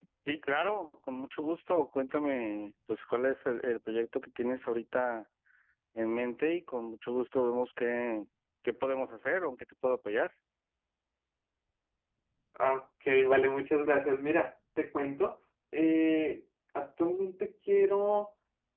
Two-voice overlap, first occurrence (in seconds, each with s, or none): none